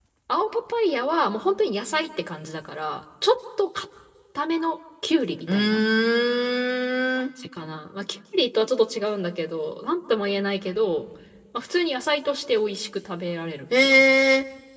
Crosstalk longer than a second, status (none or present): none